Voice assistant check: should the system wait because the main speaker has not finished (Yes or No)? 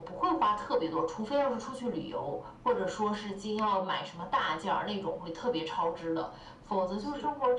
Yes